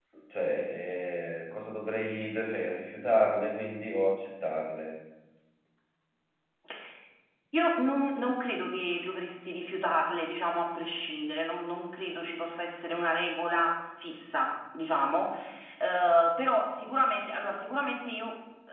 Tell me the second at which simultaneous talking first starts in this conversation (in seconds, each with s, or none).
none